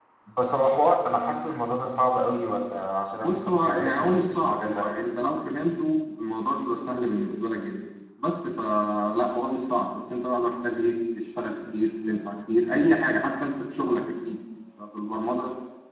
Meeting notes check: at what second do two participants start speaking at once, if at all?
3.2 s

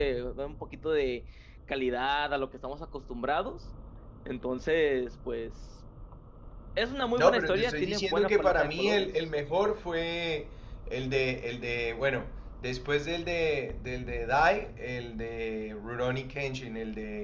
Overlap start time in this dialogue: 7.1 s

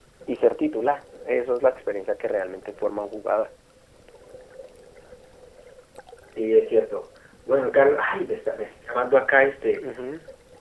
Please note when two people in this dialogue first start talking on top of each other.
none

